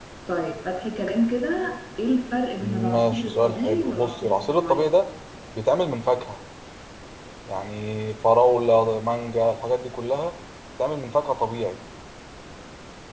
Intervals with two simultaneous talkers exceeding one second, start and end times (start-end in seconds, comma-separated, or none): 2.6-4.8